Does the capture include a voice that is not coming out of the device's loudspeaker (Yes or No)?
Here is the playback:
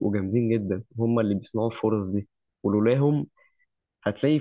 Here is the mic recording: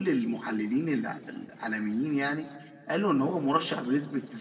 Yes